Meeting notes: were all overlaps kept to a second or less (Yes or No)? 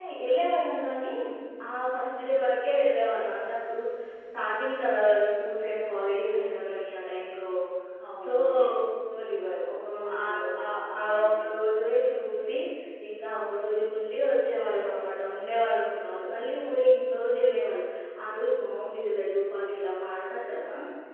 No